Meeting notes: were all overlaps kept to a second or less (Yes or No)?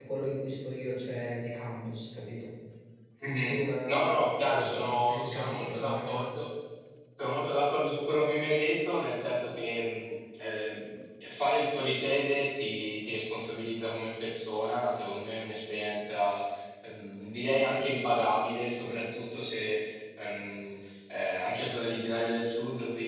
No